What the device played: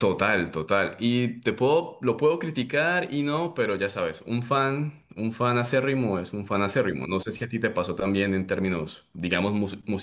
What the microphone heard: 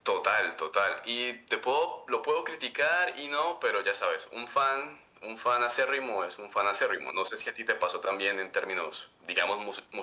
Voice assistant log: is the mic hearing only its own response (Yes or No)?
Yes